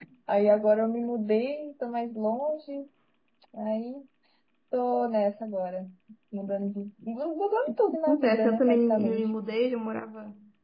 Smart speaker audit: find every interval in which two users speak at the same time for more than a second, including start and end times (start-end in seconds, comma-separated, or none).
8.1-9.3